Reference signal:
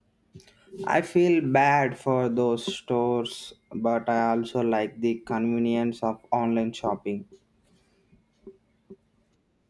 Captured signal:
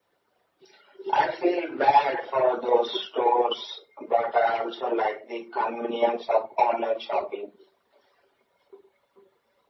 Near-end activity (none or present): none